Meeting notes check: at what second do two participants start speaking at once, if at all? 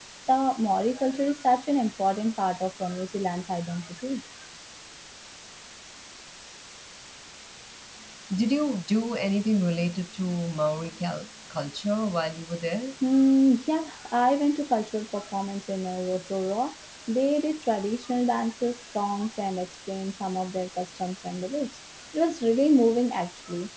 none

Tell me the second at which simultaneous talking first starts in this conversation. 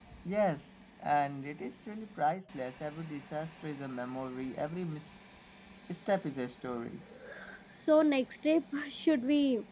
none

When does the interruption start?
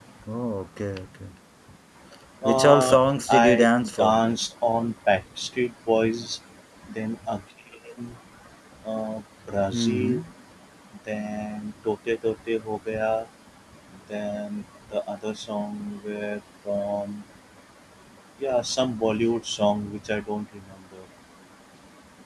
2 s

